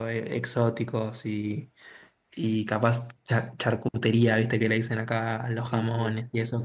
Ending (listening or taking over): listening